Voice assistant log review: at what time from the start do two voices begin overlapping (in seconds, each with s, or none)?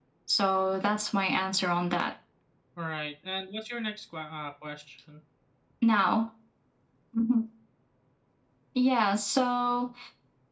none